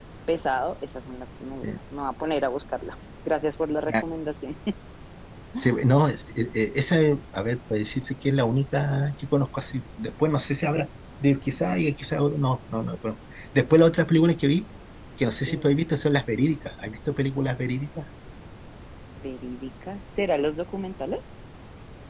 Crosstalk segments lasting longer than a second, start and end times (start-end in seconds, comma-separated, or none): none